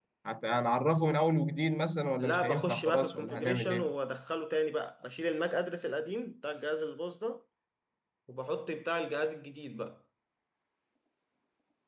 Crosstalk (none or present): present